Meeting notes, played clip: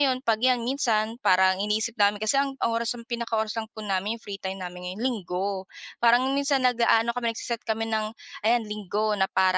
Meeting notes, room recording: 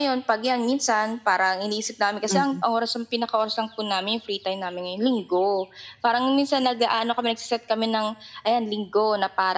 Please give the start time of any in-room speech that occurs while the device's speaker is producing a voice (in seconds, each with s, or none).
2.3 s